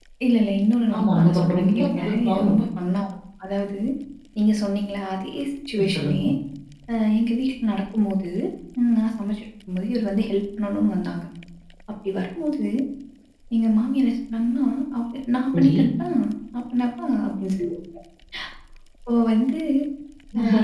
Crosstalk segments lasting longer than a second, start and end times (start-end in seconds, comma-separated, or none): 0.9-2.5